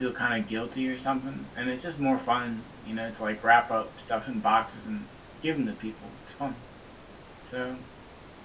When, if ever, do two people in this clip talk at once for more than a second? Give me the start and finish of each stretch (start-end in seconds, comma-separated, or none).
none